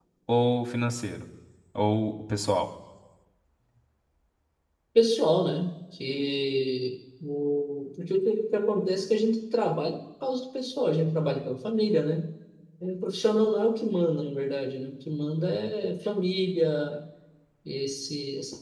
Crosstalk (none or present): none